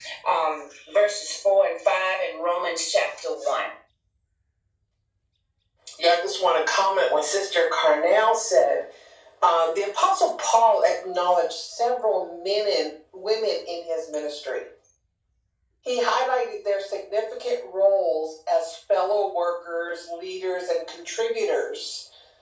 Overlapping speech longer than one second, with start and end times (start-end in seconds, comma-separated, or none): none